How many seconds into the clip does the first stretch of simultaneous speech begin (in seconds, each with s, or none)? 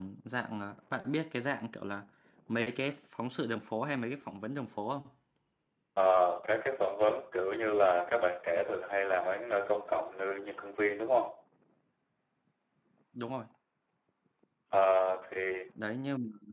none